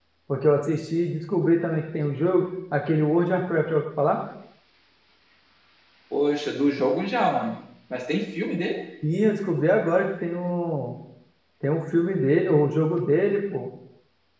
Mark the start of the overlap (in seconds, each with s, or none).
none